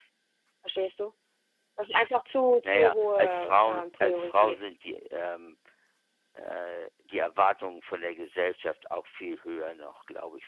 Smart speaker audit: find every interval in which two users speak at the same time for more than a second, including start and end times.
2.6-4.6

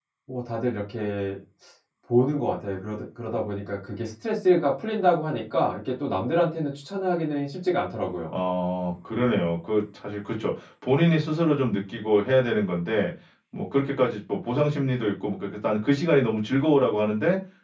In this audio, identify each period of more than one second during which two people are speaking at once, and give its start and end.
none

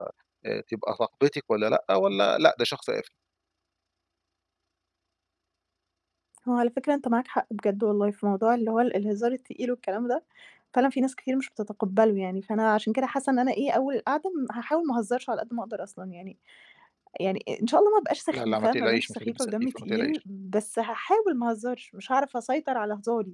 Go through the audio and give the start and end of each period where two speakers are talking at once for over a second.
18.3-20.2

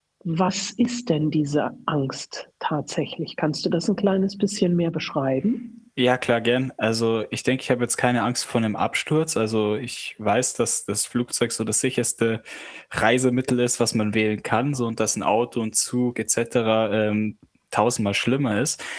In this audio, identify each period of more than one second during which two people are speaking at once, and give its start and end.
none

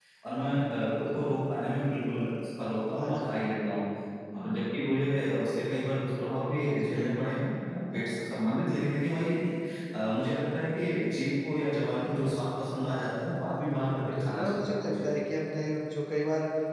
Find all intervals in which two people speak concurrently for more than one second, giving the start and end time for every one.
13.8-15.1

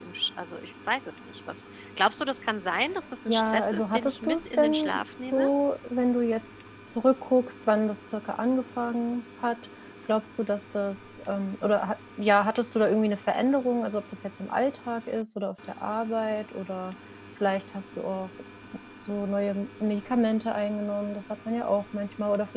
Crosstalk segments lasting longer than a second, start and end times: 3.3-5.5

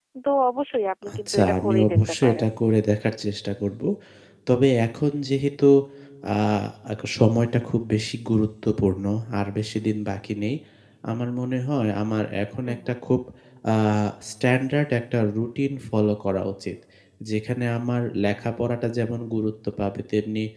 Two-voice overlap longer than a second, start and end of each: 1.1-2.5

